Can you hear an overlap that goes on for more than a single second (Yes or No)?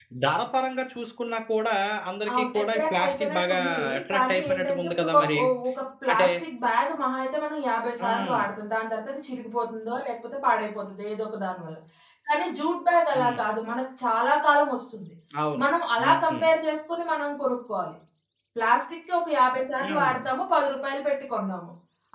Yes